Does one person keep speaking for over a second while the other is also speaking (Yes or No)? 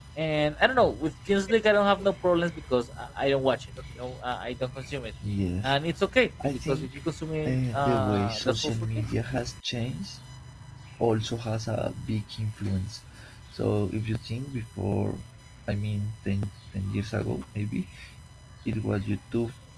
Yes